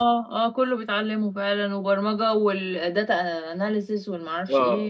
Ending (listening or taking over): taking over